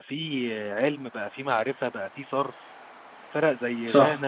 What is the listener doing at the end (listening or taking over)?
listening